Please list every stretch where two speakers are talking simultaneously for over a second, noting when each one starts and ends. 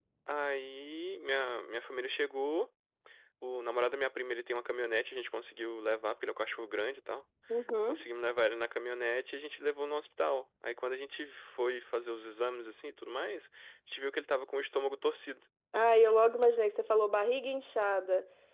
none

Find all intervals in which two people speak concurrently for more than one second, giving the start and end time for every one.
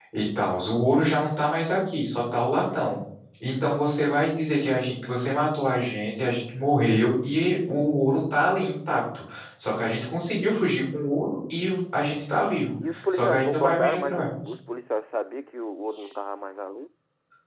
12.9-14.3

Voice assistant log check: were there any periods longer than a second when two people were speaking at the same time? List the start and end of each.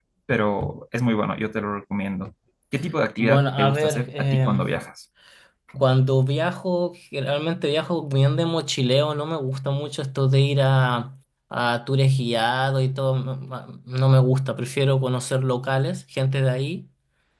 3.2-4.6

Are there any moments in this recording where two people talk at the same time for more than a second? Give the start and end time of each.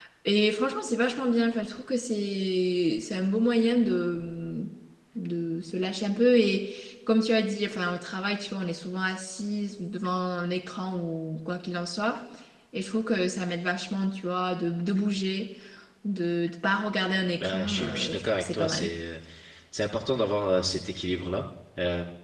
17.4-18.9

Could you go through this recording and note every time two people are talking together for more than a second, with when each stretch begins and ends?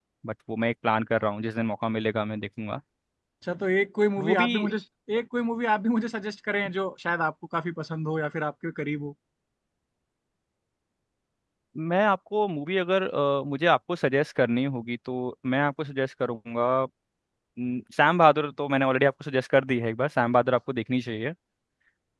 none

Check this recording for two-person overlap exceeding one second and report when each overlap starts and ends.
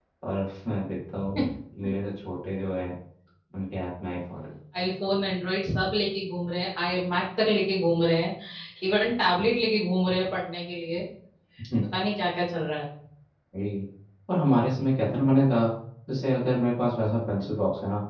none

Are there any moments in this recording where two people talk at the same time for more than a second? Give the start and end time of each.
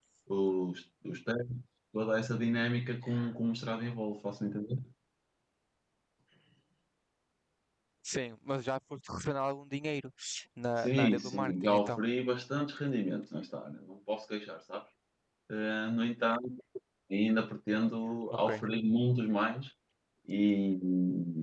10.8-12.0

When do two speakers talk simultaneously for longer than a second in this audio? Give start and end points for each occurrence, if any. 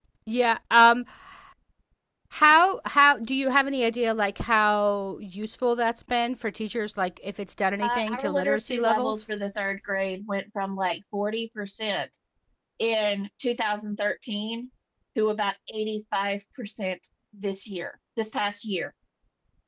7.8-9.3

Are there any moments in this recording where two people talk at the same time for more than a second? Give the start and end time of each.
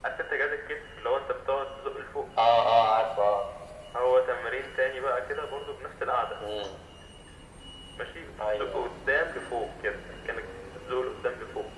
none

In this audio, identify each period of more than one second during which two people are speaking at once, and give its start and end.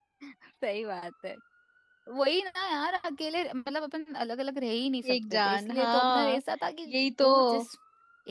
5.1-6.4

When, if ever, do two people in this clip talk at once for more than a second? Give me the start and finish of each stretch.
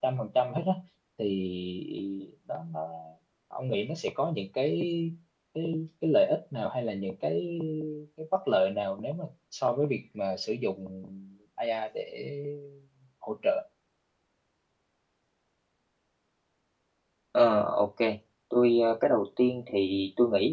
none

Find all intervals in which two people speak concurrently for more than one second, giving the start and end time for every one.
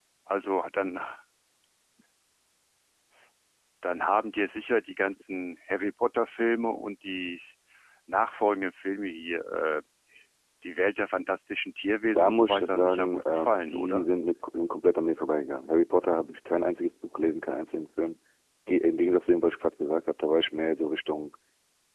12.1-14.1

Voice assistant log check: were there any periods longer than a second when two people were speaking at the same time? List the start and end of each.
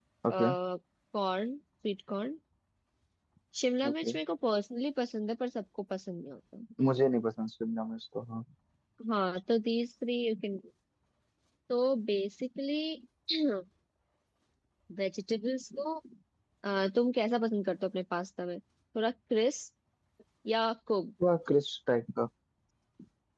none

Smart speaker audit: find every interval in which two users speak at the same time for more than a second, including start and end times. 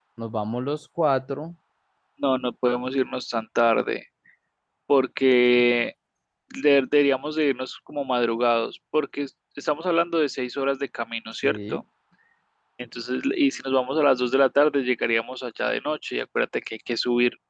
none

